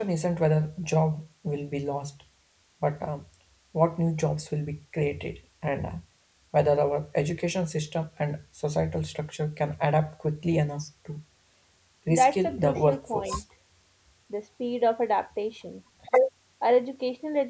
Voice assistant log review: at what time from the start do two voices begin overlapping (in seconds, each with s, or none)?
12.1 s